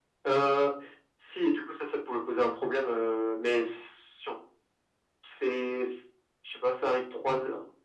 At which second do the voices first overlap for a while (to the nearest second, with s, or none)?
none